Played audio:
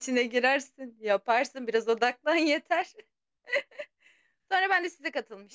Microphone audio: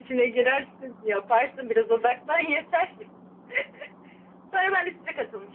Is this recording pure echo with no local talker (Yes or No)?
Yes